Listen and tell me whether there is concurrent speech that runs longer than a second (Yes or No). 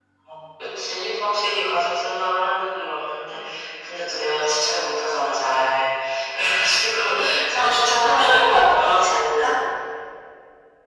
Yes